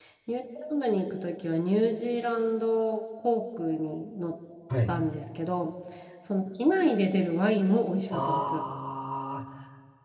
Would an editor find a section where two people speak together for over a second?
No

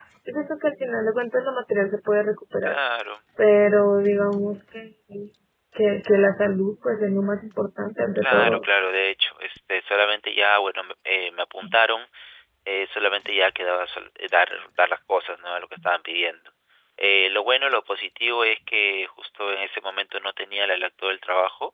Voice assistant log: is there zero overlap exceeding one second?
Yes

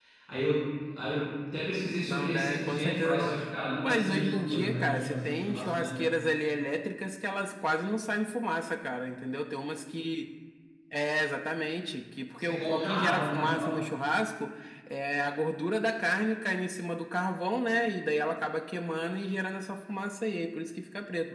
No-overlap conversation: No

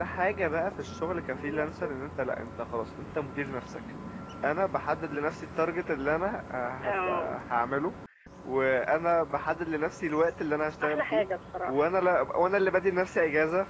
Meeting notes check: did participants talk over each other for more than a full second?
No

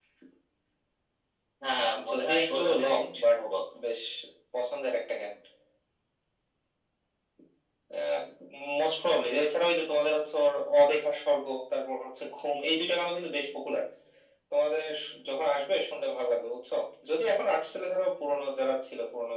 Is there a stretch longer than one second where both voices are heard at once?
Yes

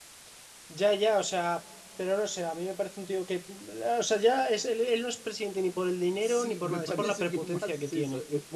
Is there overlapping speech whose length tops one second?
Yes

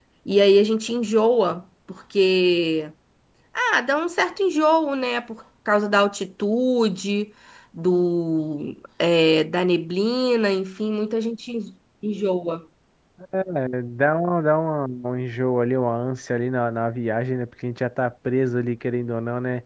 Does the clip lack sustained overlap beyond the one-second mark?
Yes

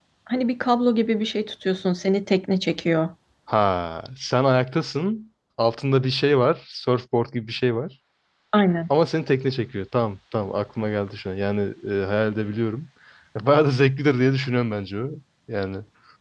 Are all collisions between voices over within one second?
Yes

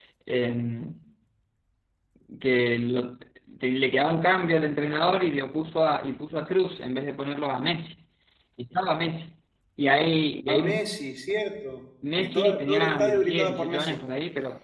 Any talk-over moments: Yes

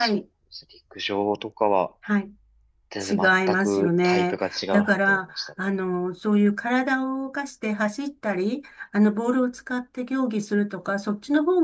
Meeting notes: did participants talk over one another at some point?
Yes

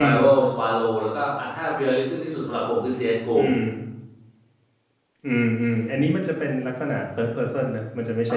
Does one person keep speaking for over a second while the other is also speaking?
No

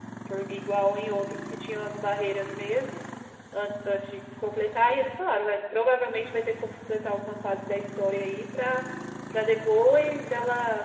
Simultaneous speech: No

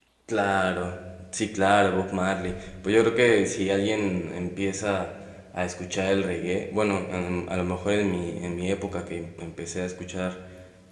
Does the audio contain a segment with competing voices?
No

